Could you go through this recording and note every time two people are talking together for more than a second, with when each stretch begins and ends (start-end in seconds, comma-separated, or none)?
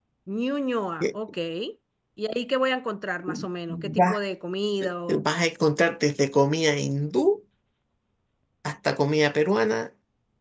none